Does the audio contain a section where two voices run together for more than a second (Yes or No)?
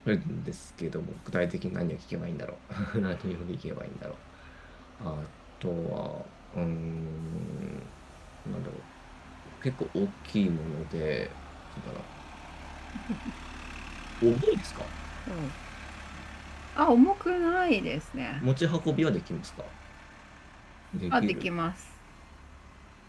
No